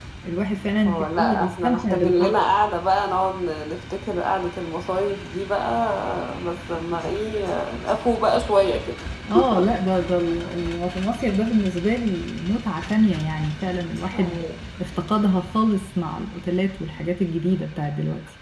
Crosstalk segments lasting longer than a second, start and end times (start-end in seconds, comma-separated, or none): 0.9-2.4